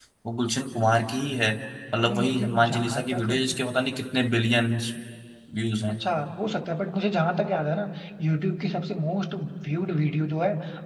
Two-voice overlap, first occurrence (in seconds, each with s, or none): 2.0 s